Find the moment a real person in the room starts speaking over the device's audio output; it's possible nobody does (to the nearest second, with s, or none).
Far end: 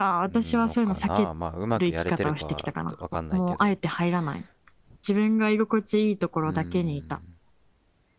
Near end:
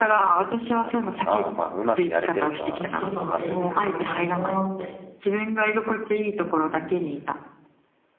3 s